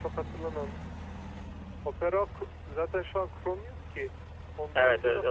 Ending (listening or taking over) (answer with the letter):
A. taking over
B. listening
A